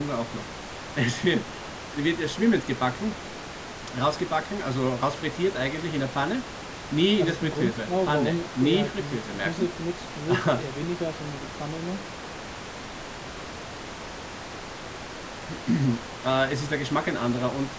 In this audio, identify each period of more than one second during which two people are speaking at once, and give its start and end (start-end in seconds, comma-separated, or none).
7.2-9.7